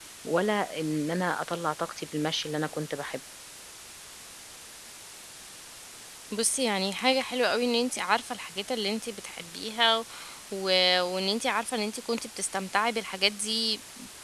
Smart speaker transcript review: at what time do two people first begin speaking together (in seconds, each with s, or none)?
none